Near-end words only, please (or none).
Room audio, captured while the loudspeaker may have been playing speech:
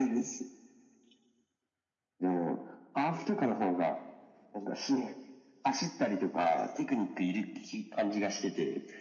none